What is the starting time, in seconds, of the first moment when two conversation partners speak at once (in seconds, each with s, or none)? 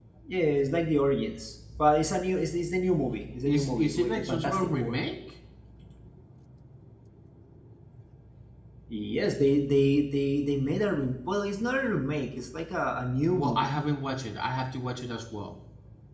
3.5 s